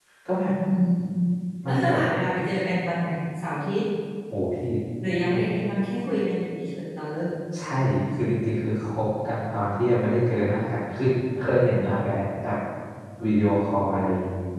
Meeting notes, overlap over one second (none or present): none